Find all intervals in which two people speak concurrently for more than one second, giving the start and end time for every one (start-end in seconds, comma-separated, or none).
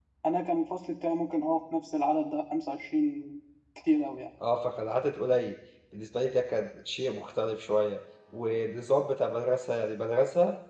none